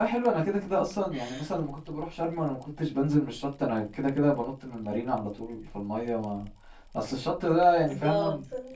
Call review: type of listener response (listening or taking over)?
listening